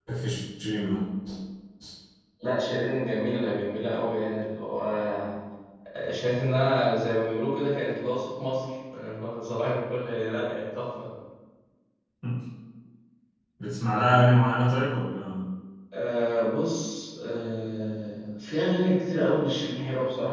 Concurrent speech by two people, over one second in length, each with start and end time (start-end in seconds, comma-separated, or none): none